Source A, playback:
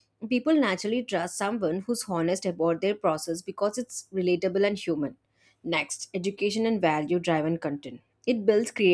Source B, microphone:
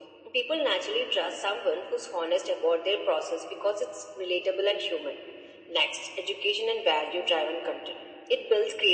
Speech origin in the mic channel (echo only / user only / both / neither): echo only